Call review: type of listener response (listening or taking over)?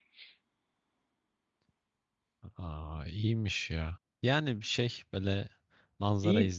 listening